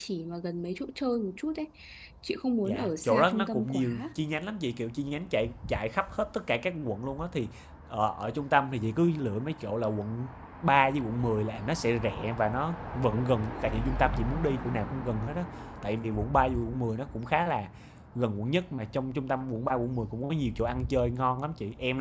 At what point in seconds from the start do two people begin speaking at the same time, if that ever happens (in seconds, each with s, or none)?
2.6 s